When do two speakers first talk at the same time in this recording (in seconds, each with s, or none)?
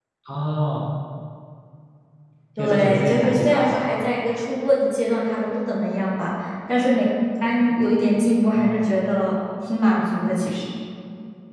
2.6 s